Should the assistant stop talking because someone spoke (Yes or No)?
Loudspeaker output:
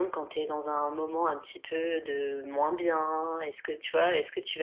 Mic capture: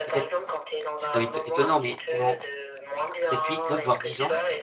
Yes